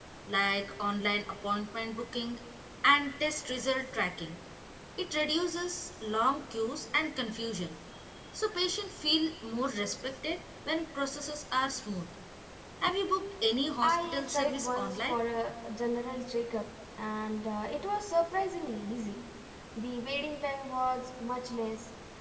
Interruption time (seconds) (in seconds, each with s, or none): 13.8 s